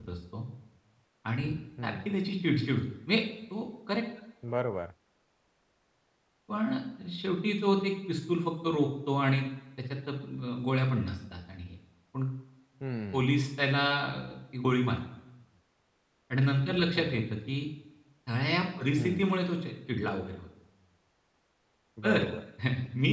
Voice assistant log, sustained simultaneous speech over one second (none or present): none